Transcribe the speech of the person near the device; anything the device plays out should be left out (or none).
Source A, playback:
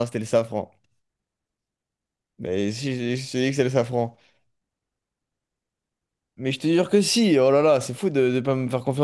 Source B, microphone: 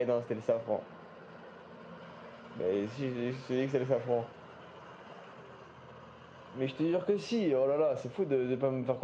none